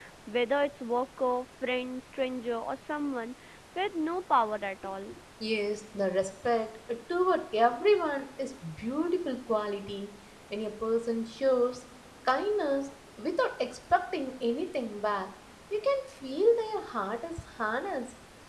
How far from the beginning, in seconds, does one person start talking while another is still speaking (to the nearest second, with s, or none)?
none